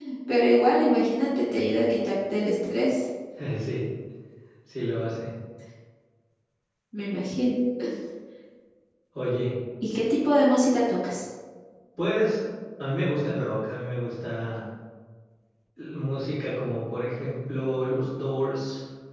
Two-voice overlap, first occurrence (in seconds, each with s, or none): none